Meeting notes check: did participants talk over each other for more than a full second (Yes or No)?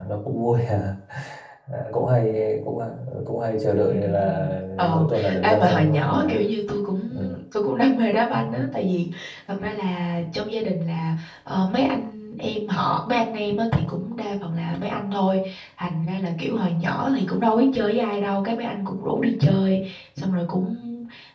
Yes